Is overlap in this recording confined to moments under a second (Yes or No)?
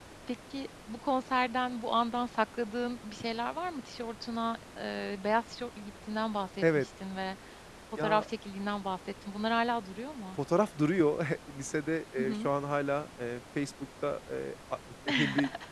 Yes